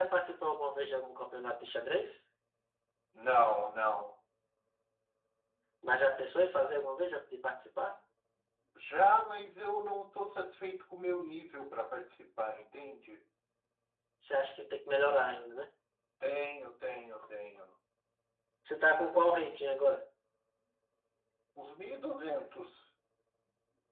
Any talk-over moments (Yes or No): No